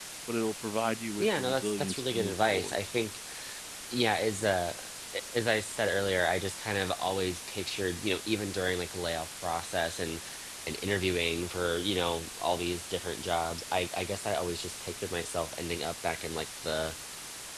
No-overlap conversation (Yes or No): No